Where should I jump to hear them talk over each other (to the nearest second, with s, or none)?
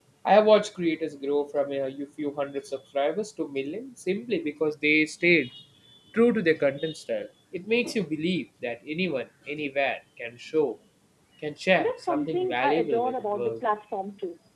12 s